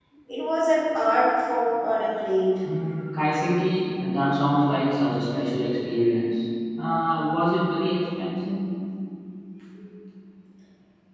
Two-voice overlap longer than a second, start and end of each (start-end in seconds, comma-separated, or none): none